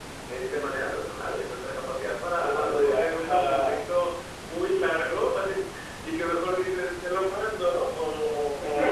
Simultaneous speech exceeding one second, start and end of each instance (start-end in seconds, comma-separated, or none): 2.4-3.8